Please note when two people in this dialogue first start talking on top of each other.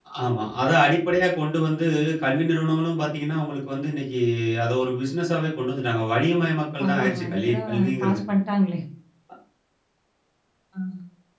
6.8 s

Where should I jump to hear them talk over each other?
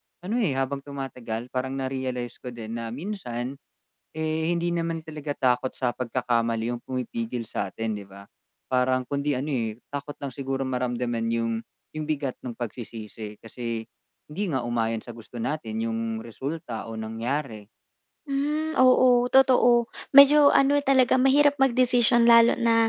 none

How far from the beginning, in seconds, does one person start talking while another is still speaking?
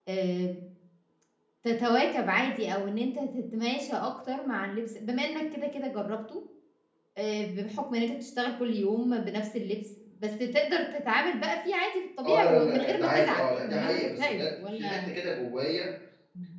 12.2 s

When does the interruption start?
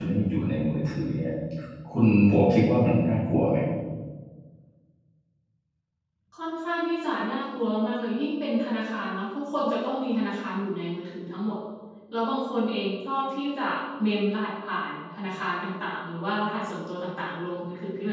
none

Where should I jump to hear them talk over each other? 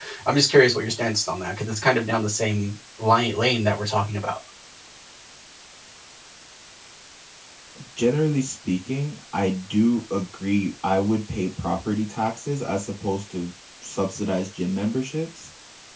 none

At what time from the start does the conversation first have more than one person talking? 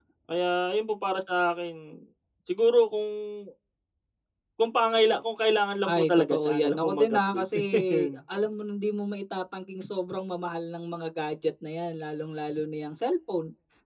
5.9 s

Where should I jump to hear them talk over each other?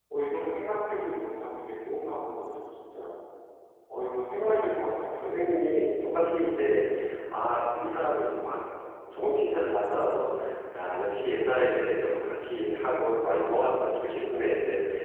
4.4 s

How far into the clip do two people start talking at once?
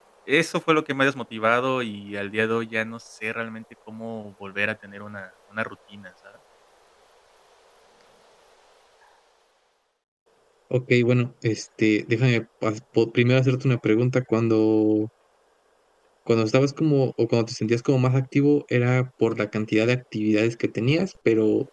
none

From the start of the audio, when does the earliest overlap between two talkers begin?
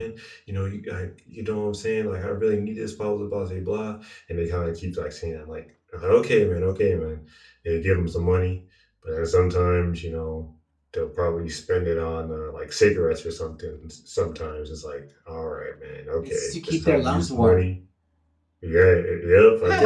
16.3 s

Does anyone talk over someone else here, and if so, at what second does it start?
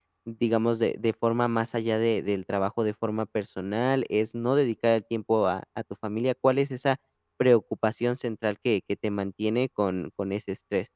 none

